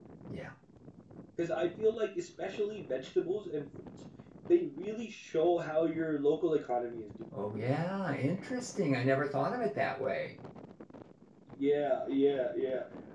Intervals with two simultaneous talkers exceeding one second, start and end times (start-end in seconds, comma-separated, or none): none